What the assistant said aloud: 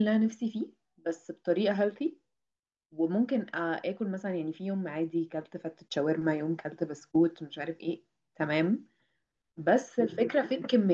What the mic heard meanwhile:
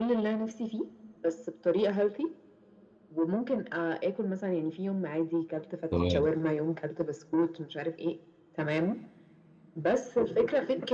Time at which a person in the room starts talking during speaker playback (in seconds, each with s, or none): 5.9 s